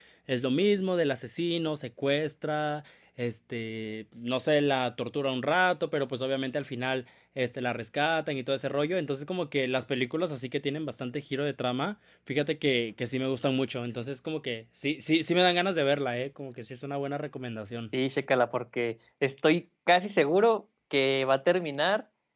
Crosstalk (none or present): none